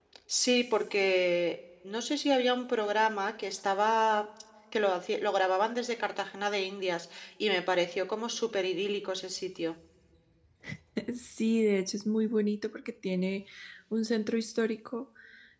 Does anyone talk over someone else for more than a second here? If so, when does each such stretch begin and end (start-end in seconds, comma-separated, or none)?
none